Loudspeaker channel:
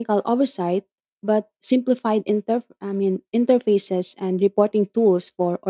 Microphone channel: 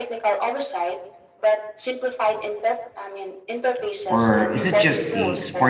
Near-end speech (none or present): present